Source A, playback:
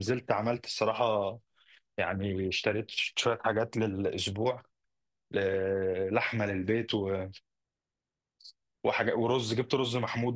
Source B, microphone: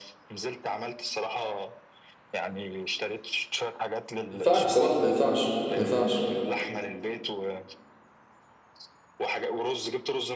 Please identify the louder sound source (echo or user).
user